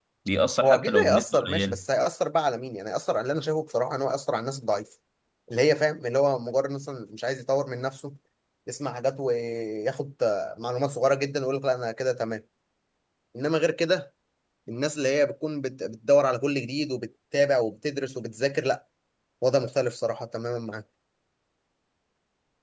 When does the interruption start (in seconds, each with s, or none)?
0.6 s